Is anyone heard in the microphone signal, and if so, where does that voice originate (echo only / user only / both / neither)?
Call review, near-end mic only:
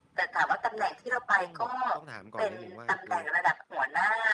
both